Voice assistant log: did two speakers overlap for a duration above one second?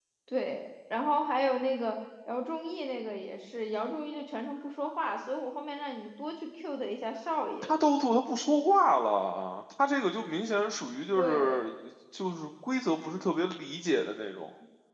No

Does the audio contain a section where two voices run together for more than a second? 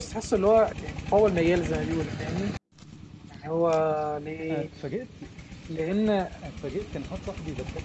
No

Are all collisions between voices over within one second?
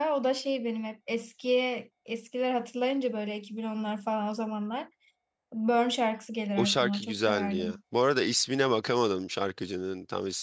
No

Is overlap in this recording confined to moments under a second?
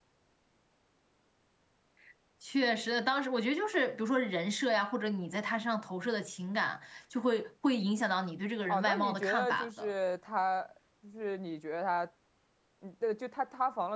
No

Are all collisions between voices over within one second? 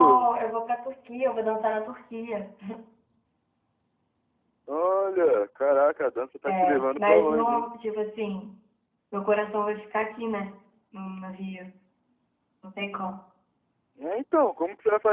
No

